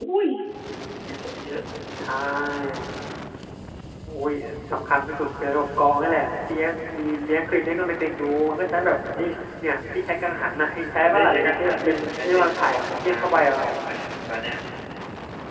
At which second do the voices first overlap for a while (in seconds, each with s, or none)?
11.0 s